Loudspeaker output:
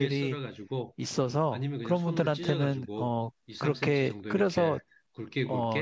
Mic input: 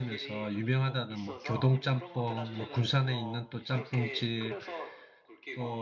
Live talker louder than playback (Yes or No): Yes